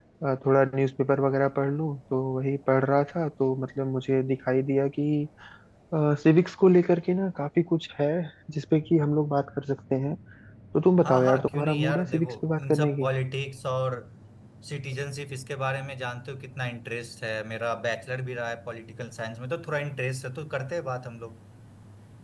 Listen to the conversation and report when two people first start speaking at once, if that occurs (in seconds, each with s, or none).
11.0 s